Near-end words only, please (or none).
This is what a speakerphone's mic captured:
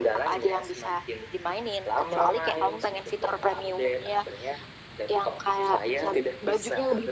none